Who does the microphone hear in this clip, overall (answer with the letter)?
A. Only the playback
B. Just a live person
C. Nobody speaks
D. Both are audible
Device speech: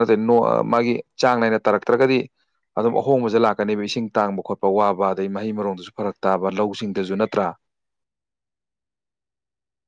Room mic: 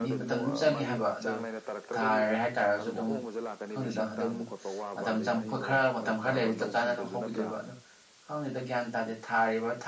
D